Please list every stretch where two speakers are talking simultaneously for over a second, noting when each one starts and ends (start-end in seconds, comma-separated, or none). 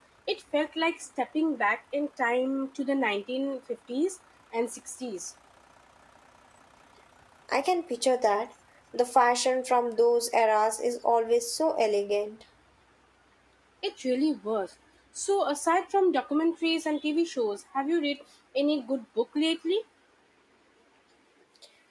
none